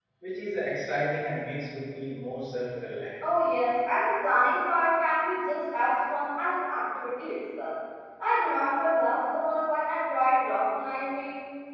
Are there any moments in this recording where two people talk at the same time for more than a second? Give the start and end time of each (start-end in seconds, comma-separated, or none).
none